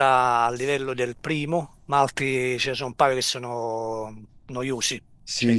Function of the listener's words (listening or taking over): taking over